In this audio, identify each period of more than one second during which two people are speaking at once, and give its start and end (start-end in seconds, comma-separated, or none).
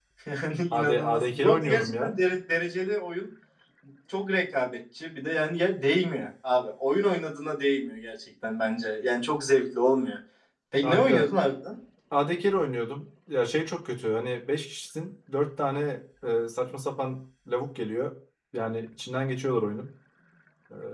0.7-2.1